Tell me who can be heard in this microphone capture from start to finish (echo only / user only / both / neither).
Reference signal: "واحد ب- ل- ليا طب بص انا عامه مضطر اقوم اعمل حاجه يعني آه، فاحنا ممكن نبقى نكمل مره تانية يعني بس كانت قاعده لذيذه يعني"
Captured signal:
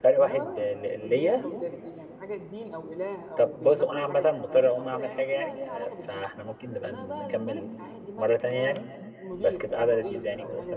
both